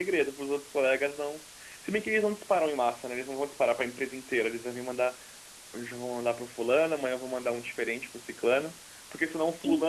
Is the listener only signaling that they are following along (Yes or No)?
Yes